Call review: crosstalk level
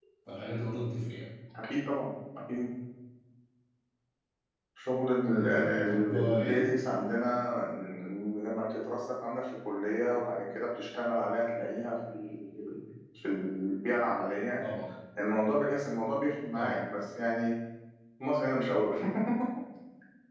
present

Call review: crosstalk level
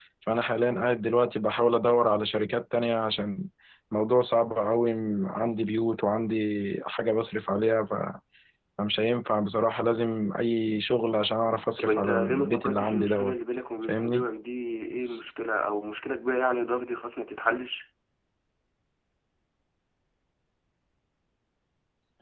present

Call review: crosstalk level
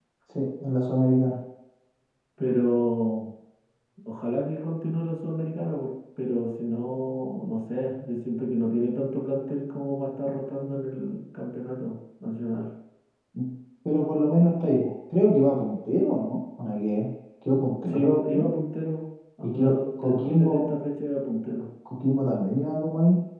present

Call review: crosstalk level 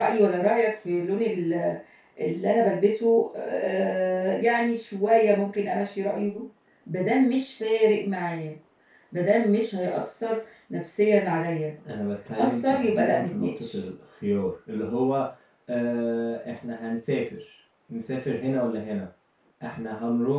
present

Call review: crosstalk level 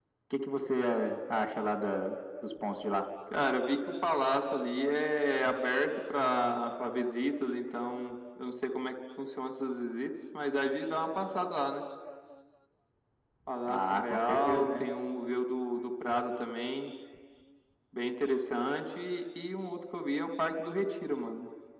present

